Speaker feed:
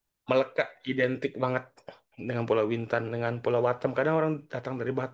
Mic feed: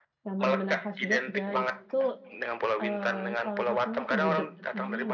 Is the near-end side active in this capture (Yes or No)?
Yes